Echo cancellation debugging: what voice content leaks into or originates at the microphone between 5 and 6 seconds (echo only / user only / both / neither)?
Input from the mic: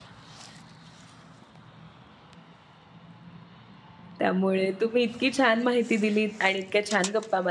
user only